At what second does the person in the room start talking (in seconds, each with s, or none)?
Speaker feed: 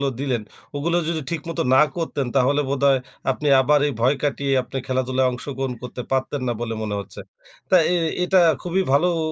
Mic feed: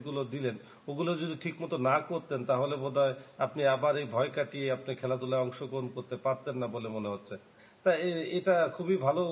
none